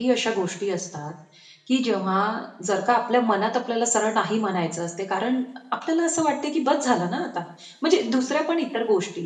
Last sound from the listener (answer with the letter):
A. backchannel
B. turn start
A